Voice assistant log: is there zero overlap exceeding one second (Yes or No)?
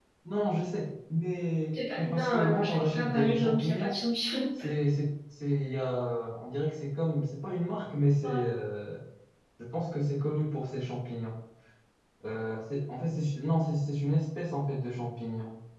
No